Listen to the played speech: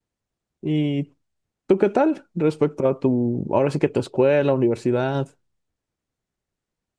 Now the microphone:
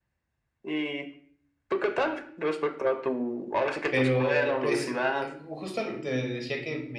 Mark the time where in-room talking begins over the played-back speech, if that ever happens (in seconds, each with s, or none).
3.9 s